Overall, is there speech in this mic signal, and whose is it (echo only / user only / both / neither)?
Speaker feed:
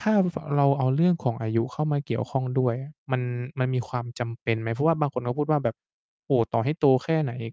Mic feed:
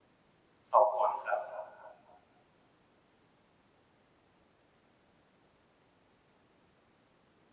user only